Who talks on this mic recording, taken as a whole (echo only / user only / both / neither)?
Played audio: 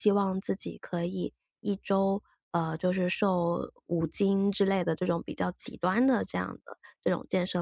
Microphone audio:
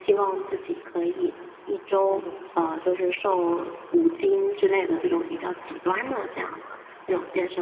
both